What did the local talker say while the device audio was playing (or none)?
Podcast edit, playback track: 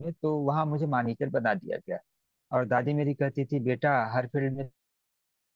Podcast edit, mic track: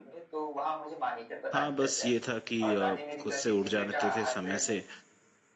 हाँ बस ये था कि अ, खुद से उठ जाते थे समय से